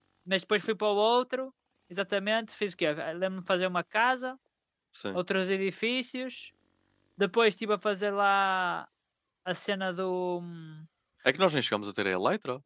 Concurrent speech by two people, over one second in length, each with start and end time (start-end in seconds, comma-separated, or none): none